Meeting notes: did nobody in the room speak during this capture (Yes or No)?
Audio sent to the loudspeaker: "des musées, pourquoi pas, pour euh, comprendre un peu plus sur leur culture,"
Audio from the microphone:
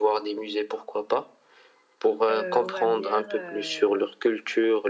No